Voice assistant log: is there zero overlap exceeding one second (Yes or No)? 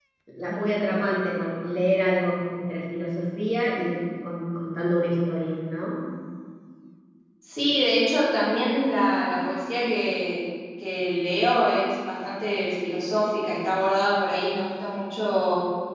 Yes